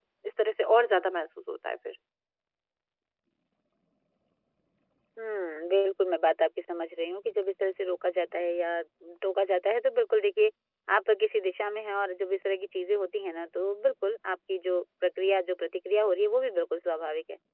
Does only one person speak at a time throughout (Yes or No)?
Yes